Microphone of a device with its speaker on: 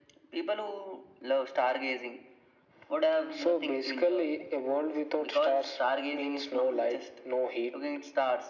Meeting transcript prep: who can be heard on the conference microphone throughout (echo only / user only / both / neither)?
echo only